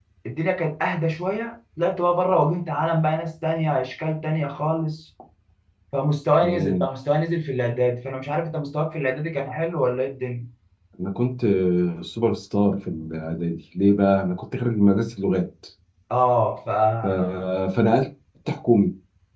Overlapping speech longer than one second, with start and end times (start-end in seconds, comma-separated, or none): none